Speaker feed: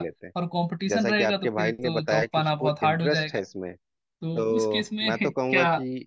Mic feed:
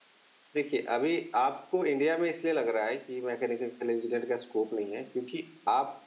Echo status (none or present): none